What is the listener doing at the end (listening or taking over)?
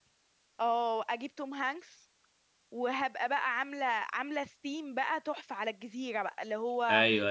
listening